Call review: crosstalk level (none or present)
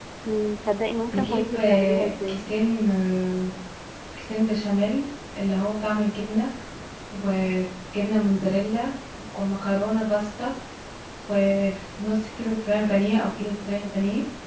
present